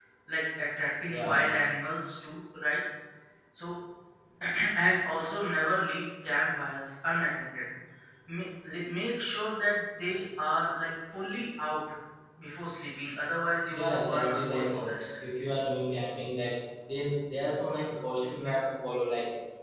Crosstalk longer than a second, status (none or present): present